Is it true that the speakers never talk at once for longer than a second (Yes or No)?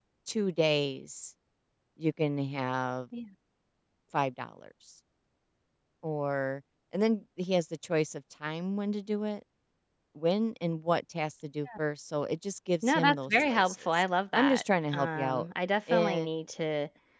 No